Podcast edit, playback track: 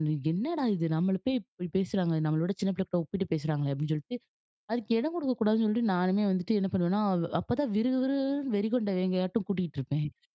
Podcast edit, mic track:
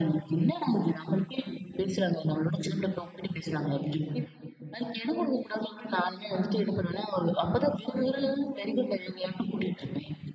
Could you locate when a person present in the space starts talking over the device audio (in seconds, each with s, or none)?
none